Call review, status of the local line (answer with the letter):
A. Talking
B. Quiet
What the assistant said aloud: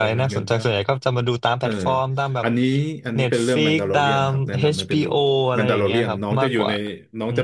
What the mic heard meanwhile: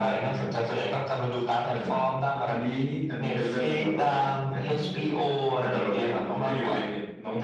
B